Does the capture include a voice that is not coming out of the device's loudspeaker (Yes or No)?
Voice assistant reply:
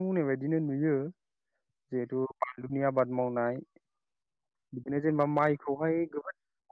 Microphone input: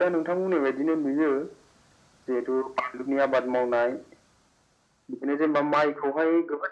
No